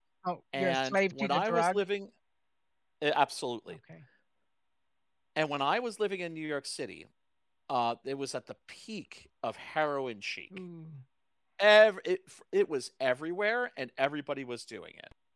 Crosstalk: present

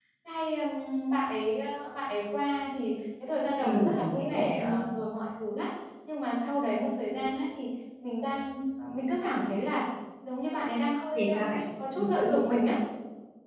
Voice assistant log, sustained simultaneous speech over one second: present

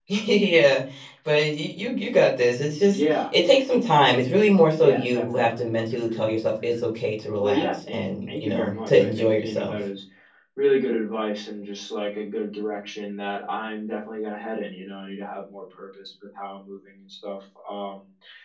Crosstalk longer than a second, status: present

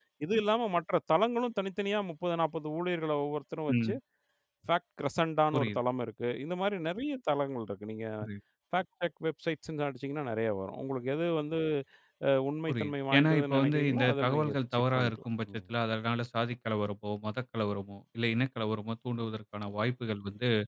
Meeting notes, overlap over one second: present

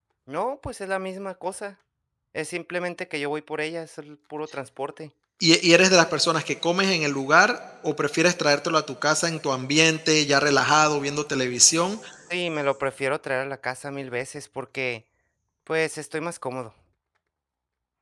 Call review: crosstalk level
none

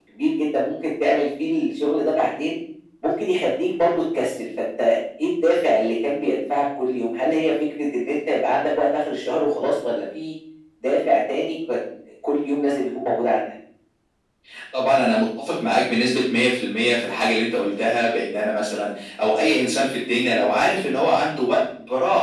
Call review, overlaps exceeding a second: none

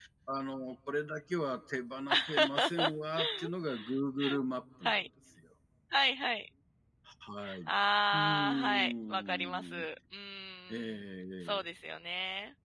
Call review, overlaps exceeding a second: present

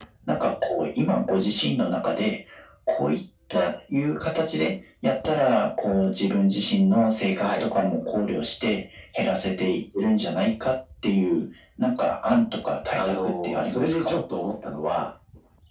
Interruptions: present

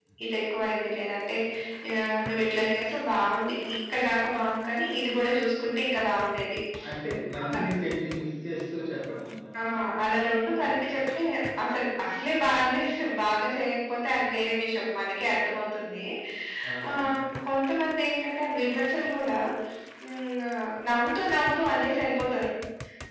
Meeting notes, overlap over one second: none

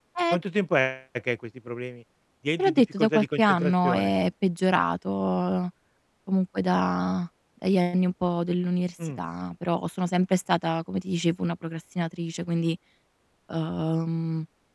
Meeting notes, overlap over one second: present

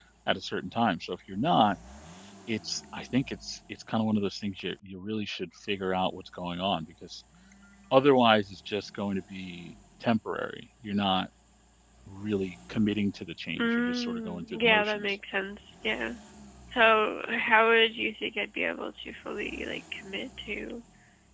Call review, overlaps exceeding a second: present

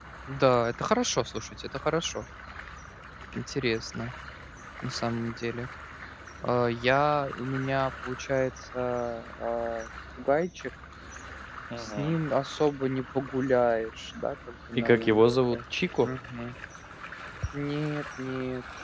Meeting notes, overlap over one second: none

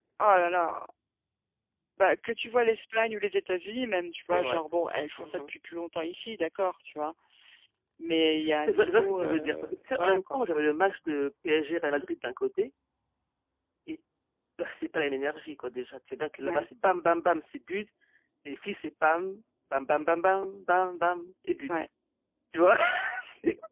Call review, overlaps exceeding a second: present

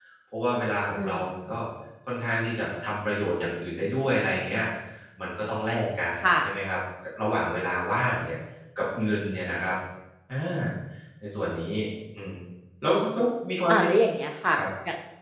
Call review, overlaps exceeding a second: none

